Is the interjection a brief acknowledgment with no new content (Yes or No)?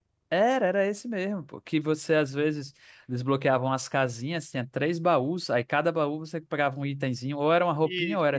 Yes